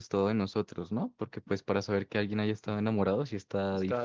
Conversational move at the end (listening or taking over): taking over